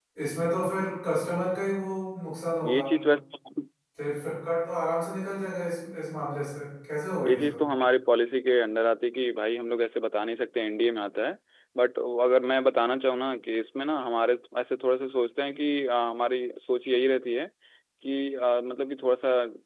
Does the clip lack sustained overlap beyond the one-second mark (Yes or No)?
Yes